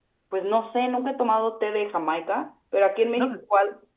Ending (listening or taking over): listening